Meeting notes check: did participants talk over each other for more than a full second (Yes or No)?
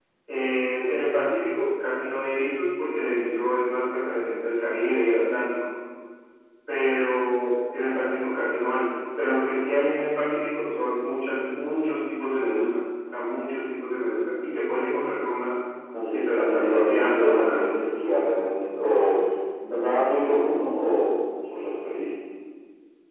Yes